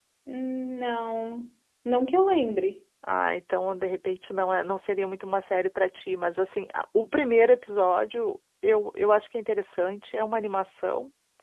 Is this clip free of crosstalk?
Yes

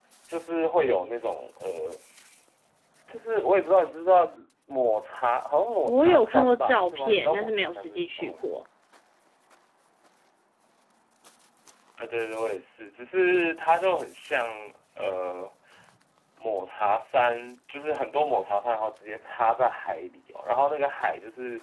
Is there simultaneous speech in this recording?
Yes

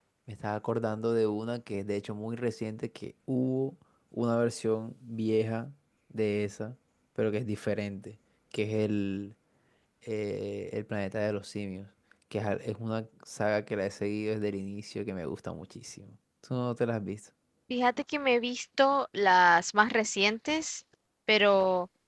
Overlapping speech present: No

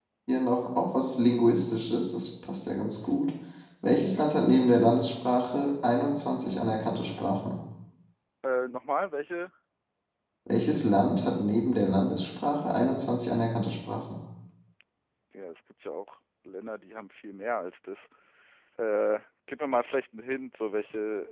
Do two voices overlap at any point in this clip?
No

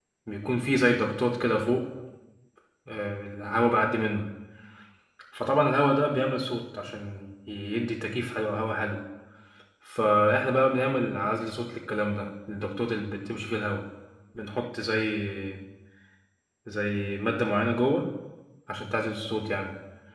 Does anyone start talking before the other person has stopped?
No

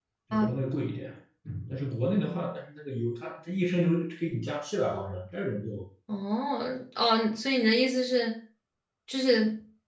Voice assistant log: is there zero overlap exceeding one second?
Yes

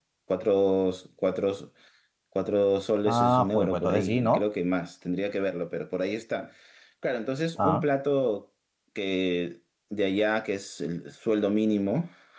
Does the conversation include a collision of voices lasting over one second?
Yes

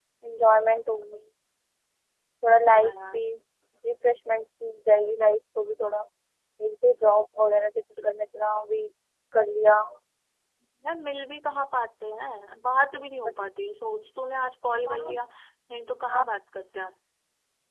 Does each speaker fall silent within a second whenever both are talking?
Yes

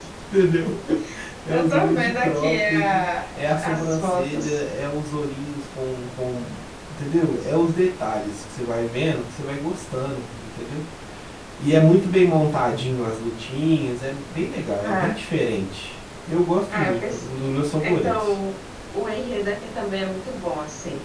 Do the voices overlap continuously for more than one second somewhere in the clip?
Yes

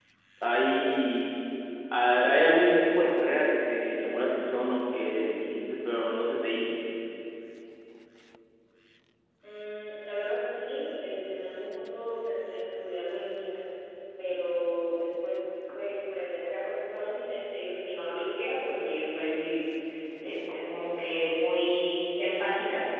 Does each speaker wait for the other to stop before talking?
Yes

